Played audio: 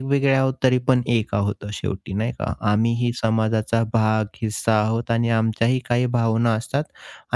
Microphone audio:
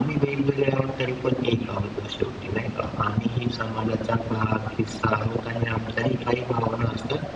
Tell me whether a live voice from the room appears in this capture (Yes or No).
No